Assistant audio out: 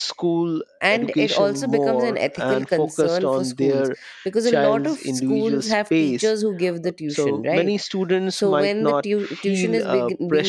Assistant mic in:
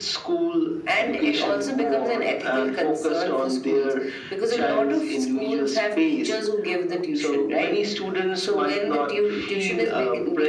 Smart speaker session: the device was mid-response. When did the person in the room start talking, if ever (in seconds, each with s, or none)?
none